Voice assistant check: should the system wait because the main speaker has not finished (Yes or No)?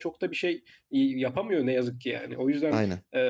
Yes